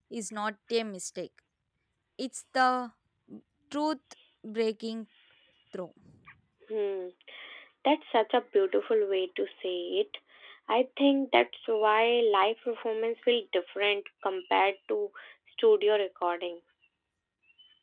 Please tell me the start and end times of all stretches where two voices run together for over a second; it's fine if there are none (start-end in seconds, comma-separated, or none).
none